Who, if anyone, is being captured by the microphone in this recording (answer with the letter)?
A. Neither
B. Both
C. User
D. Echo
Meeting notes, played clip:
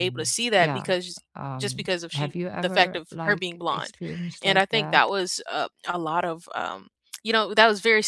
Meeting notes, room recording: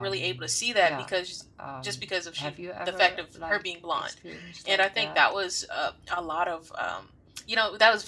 D